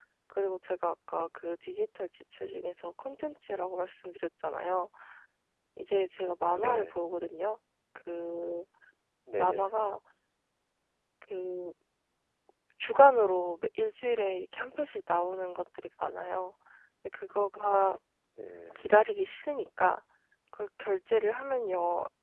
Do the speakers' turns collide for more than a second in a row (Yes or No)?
No